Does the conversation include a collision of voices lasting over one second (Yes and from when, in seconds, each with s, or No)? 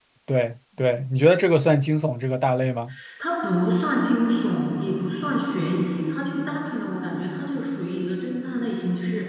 No